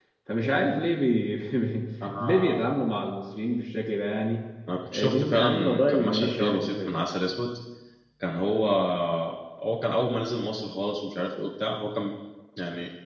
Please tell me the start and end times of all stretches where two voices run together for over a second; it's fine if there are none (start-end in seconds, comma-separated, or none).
4.9-7.0